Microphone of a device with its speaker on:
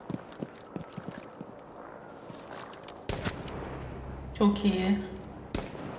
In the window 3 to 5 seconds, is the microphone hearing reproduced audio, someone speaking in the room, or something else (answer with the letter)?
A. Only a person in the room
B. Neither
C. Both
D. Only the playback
A